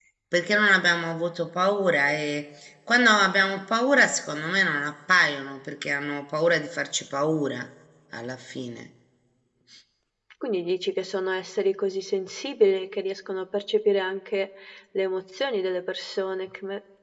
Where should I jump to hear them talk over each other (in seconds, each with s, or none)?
none